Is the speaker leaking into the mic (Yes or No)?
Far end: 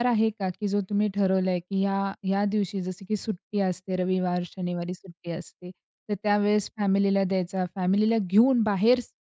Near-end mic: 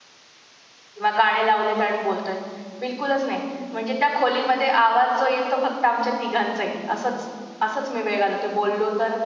No